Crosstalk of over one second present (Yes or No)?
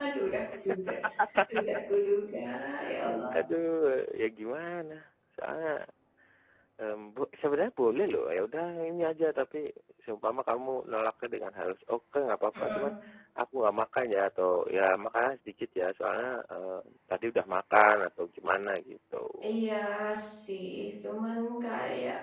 No